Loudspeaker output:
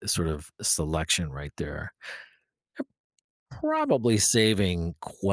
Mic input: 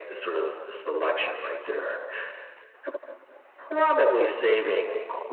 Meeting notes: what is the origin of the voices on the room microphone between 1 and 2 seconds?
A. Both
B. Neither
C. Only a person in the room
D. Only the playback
D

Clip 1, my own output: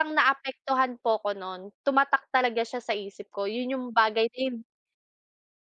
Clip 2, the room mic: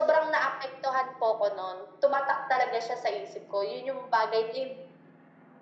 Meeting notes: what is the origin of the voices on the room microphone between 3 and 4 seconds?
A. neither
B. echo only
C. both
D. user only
B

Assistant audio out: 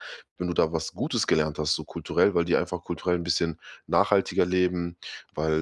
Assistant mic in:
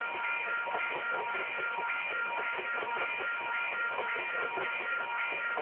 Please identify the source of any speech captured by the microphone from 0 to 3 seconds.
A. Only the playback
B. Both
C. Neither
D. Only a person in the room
C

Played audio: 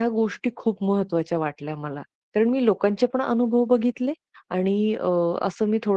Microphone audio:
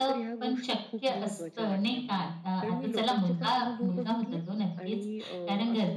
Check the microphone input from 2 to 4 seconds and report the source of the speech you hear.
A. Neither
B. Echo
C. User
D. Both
D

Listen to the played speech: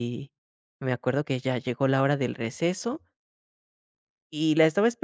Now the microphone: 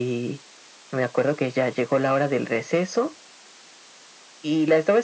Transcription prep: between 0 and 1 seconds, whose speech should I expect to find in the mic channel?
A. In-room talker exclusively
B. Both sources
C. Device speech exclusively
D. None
C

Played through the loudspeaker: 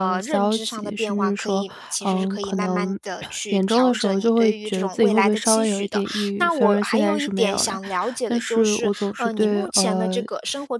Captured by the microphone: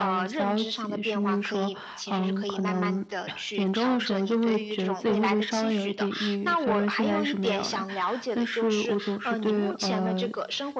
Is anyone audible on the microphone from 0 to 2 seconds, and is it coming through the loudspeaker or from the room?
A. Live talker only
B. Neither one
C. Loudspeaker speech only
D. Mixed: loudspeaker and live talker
C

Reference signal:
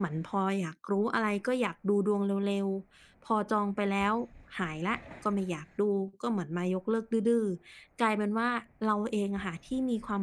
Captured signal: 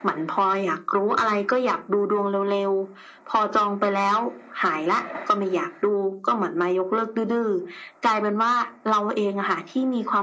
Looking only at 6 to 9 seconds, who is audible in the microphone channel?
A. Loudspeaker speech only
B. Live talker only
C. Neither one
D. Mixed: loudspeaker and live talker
A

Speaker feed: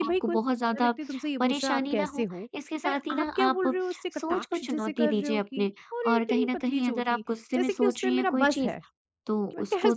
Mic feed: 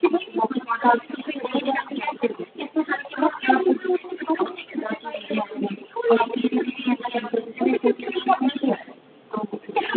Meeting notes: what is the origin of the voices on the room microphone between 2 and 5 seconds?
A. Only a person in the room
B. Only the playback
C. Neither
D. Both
B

